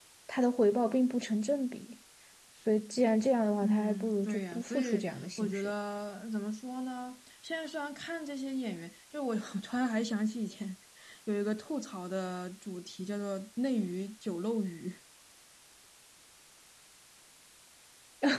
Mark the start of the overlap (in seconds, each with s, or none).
3.6 s